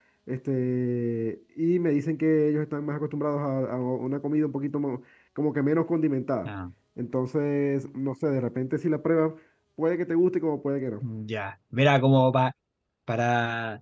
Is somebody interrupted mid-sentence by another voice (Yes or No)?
No